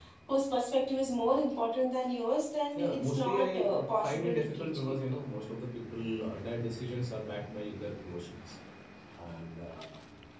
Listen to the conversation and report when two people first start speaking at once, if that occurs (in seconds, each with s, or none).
2.8 s